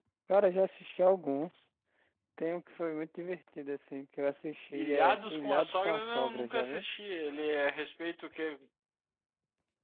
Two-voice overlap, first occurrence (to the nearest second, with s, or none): 5 s